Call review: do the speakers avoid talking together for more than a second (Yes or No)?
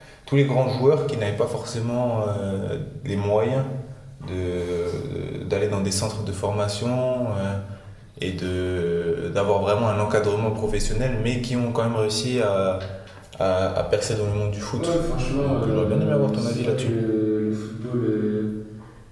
No